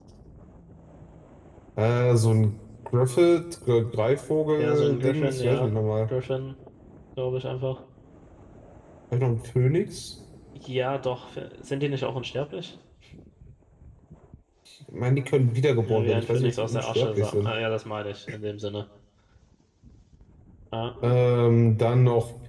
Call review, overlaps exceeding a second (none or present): present